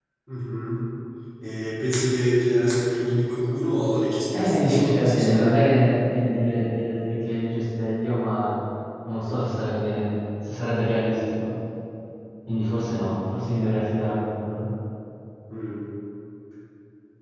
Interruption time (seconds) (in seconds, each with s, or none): 4.3 s